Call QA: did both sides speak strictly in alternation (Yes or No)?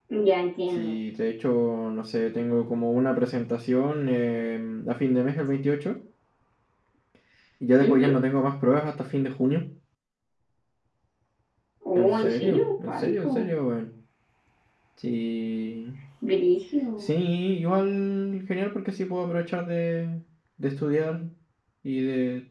No